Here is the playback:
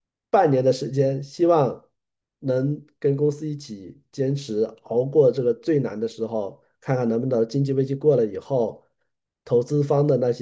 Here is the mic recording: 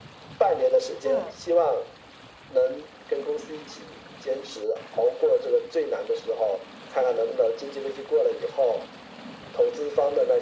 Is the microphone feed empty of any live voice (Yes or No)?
No